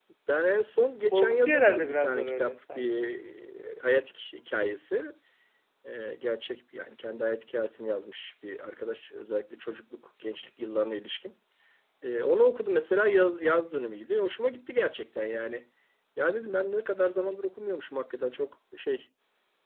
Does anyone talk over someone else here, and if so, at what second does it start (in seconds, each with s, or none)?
1.1 s